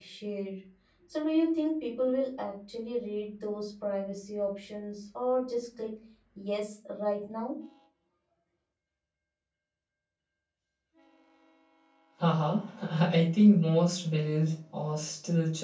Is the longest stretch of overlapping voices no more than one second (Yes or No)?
Yes